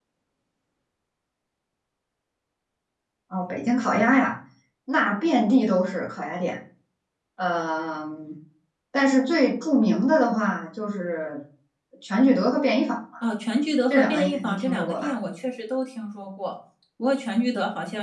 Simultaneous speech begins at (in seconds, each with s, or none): 13.9 s